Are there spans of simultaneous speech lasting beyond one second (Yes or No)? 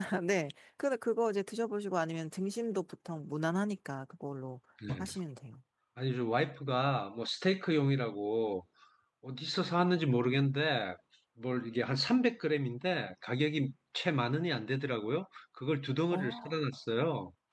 No